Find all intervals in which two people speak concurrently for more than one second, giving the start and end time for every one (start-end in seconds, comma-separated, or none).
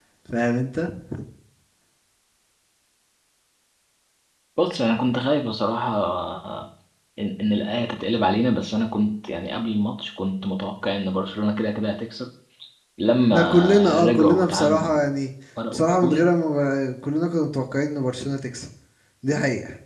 13.3-15.1